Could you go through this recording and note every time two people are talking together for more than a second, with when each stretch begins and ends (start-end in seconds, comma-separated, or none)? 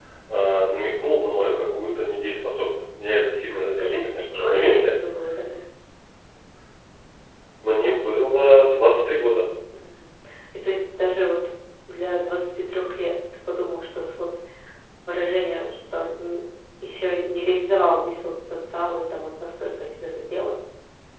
3.5-4.9